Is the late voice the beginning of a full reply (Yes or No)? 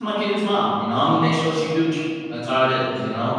Yes